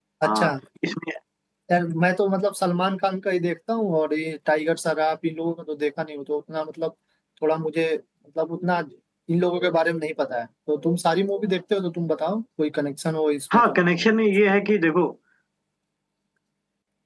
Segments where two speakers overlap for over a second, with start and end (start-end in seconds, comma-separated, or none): none